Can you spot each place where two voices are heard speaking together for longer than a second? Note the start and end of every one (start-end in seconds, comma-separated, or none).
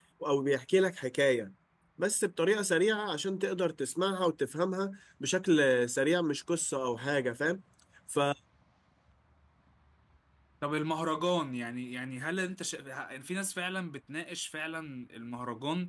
none